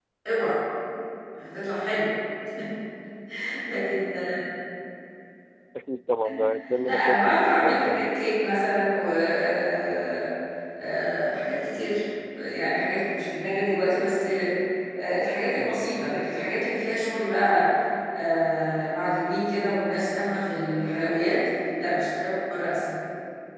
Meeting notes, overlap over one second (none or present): present